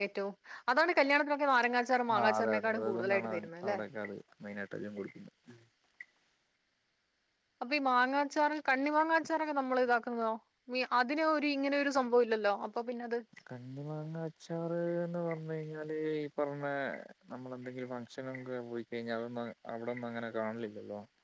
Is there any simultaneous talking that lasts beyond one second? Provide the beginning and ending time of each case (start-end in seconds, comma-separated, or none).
2.2-3.8